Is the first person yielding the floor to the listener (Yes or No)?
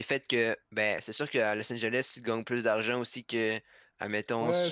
Yes